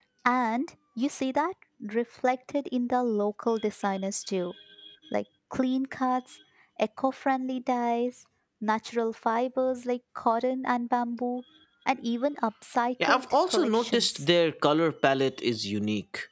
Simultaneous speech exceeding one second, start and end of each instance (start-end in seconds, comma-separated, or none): 13.0-14.2